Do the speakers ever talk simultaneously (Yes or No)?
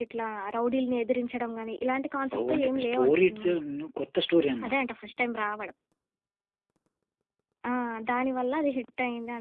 Yes